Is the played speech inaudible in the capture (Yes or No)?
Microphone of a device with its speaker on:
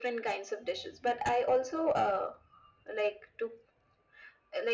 No